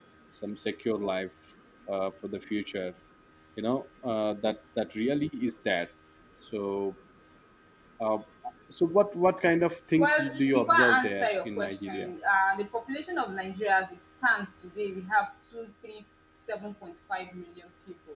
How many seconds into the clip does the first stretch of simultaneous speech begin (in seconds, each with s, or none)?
10.0 s